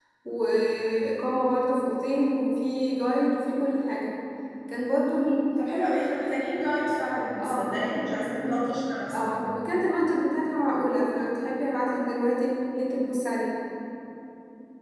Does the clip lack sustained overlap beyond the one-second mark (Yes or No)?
Yes